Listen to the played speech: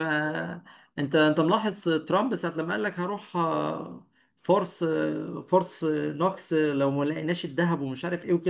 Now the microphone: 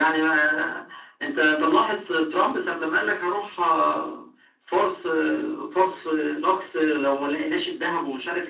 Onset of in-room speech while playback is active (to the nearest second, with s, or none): none